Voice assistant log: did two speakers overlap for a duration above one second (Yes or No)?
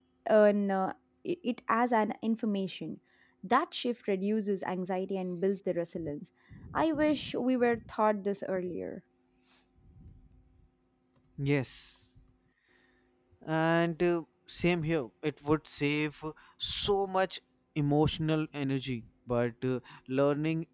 No